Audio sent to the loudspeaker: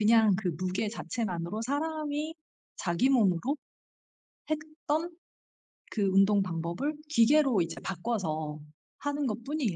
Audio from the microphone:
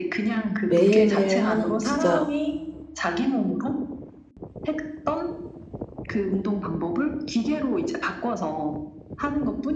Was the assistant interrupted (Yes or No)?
Yes